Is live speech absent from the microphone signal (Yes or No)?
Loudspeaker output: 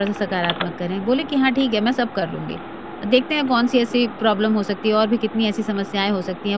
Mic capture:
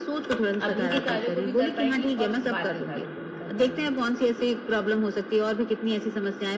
No